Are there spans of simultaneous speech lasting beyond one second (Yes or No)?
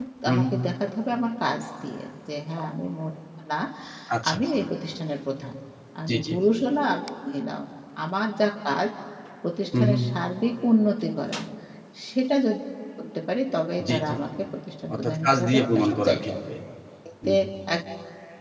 Yes